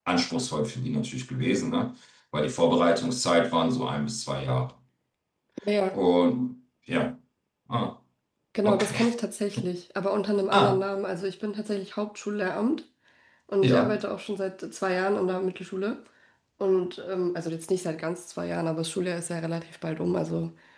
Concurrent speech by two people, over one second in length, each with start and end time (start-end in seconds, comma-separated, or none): none